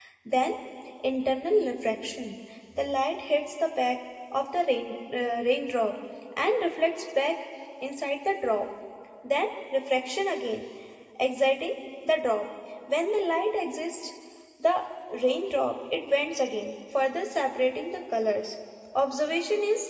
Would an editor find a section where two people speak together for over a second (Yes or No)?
No